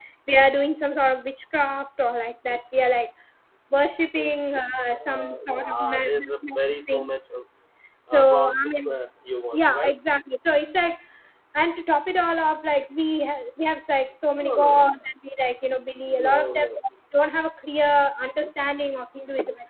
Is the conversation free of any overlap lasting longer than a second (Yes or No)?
No